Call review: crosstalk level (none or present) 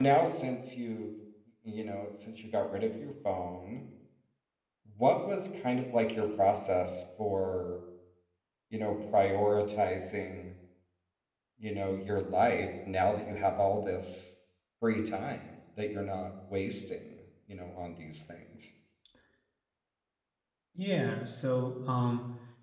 none